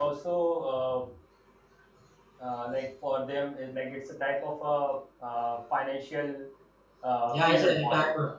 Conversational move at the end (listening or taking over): taking over